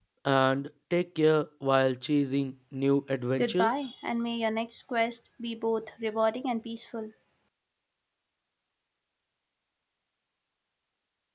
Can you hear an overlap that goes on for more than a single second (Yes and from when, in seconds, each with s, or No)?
No